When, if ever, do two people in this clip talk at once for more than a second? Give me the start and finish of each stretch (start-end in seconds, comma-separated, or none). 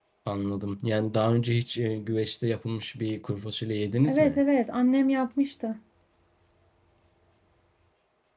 none